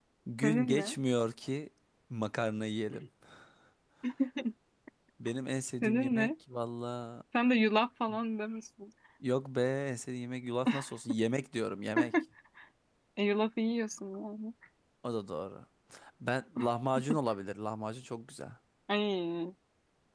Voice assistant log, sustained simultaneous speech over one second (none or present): none